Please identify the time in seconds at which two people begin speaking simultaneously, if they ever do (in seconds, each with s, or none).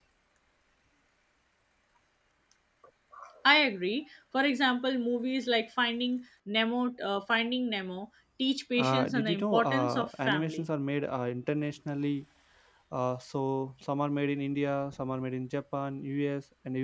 8.8 s